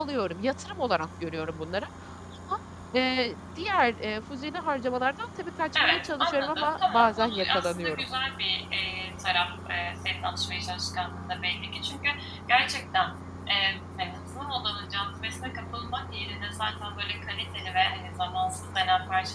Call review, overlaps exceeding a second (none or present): present